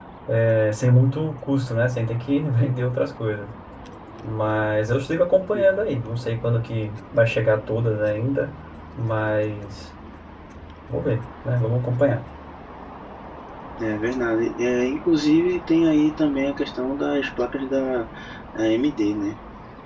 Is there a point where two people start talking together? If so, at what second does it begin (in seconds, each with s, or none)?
none